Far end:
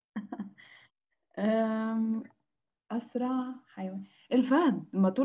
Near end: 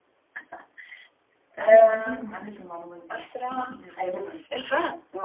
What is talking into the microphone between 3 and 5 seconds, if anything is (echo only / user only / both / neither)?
both